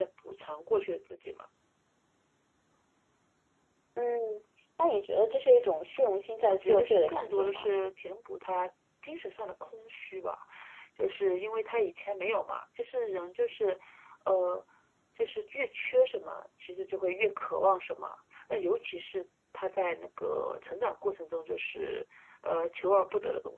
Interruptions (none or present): present